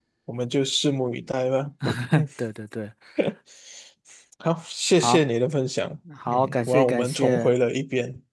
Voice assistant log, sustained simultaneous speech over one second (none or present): present